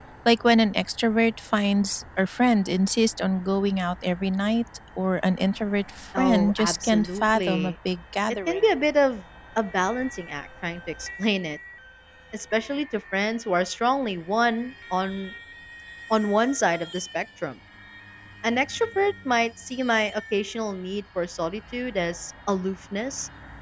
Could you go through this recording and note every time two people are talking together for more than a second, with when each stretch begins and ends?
6.2-7.8

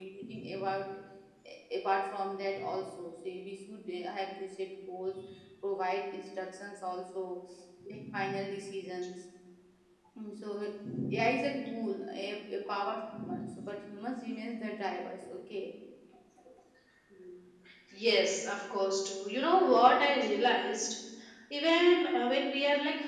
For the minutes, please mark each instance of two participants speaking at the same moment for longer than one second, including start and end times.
none

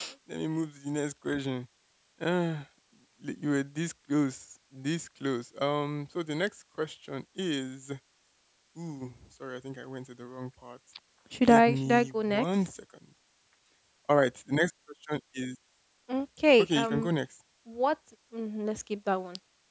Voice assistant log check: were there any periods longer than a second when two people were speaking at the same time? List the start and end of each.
11.5-12.7

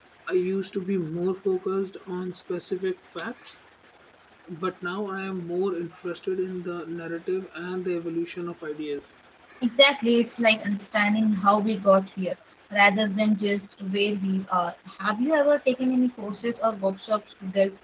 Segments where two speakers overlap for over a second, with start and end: none

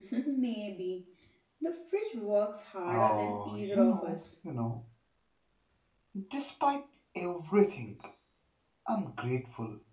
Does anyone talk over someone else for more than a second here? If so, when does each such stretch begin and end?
2.9-4.2

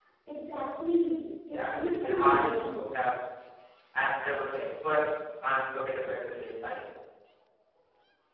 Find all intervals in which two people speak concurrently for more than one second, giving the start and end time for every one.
1.5-2.9

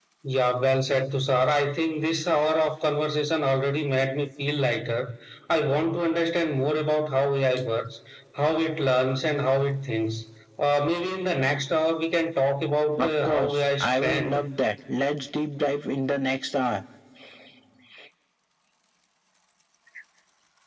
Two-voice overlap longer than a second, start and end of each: 13.0-14.5

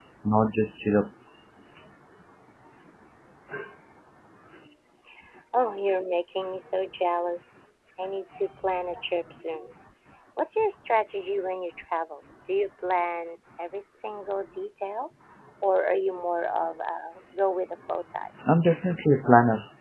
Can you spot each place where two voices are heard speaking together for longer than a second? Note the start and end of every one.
none

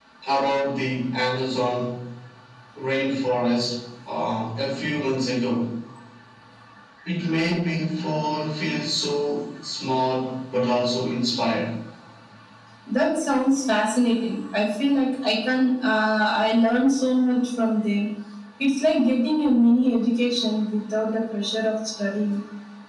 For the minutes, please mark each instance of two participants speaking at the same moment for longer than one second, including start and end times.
none

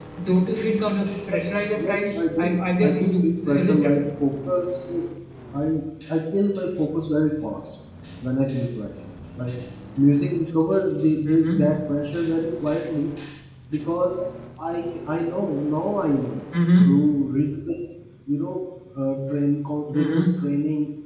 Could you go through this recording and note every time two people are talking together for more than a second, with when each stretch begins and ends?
1.8-4.0

